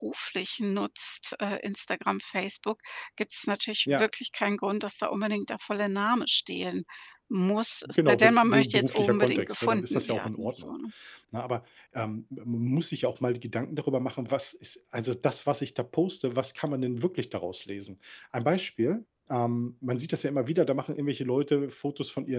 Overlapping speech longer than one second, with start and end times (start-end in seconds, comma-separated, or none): 7.9-10.7